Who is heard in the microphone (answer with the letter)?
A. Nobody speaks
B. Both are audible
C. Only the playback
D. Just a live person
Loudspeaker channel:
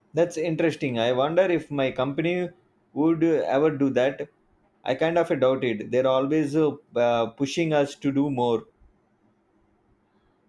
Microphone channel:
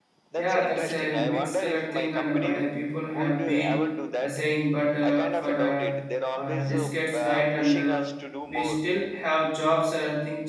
B